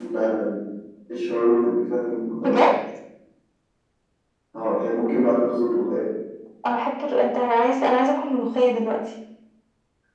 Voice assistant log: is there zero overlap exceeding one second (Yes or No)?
Yes